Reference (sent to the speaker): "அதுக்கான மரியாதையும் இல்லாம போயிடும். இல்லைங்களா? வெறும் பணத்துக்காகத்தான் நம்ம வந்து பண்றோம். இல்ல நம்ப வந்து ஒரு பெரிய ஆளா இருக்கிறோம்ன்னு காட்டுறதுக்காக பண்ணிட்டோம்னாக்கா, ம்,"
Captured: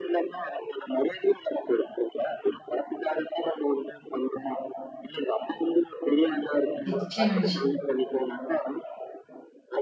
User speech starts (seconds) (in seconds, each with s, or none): 6.9 s